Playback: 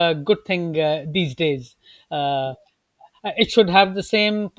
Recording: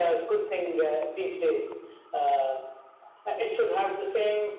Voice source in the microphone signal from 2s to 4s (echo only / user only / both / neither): echo only